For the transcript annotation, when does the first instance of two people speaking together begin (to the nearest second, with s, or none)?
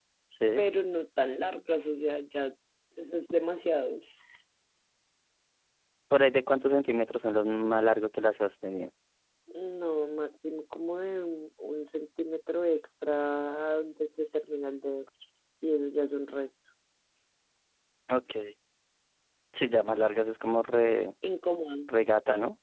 none